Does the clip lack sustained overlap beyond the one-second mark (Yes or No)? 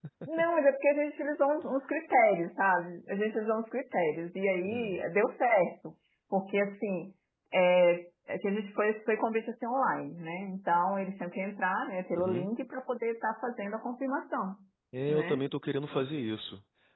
Yes